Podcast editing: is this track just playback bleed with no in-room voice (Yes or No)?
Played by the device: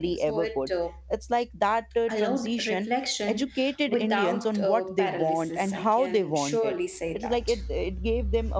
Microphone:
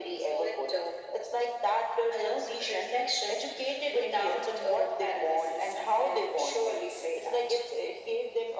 Yes